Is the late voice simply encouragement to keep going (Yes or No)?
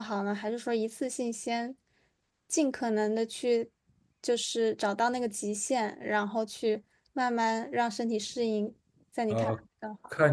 No